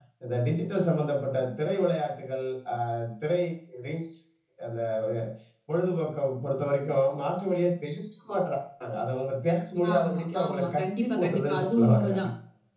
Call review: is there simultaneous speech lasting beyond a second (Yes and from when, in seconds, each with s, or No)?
Yes, from 9.8 s